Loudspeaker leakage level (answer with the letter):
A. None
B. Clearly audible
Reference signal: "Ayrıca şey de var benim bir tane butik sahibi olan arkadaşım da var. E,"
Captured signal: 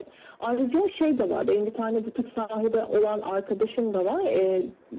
B